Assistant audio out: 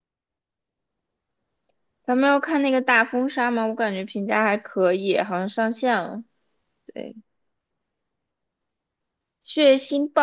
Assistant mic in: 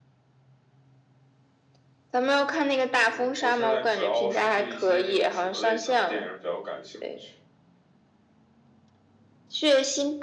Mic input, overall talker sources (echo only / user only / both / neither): both